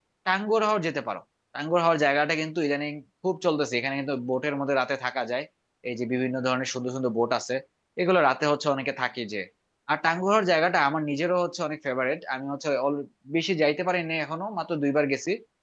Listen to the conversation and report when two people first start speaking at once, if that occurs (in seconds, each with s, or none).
none